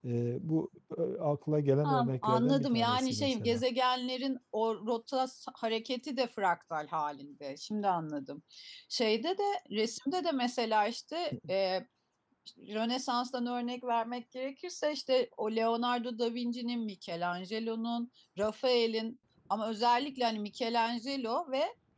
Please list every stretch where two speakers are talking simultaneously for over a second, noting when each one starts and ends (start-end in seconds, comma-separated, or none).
1.8-3.6